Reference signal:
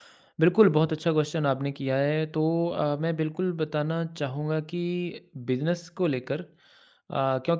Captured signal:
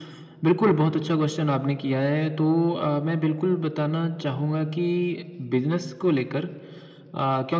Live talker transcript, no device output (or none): none